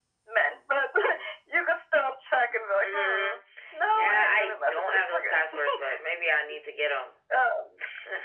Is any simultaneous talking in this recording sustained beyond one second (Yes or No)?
Yes